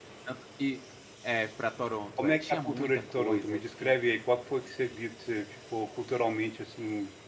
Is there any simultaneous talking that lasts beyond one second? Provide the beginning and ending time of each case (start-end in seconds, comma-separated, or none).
2.2-3.9